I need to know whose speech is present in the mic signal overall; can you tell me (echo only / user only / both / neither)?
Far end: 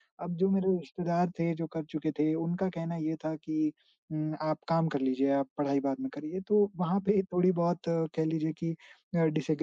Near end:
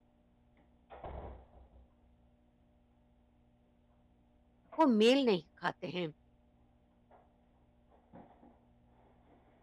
user only